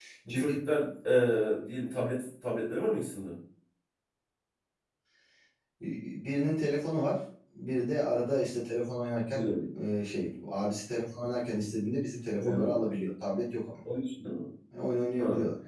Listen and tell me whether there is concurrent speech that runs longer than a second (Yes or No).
No